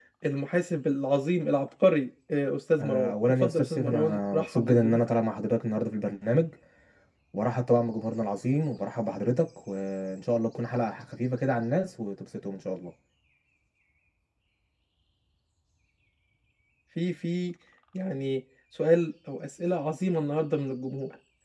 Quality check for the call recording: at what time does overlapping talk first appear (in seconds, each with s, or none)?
2.7 s